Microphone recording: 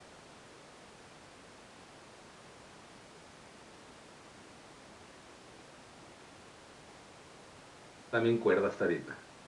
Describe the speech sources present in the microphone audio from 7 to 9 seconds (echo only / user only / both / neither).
user only